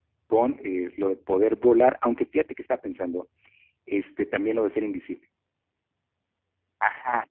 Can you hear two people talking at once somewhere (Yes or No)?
No